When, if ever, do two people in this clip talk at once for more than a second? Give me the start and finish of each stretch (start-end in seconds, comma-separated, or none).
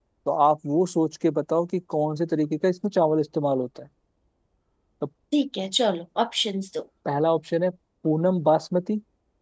none